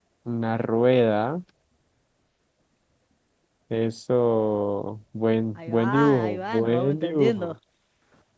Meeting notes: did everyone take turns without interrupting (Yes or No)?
No